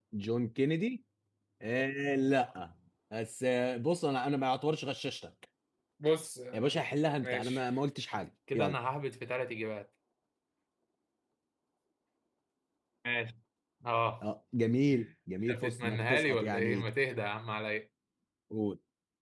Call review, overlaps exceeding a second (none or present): present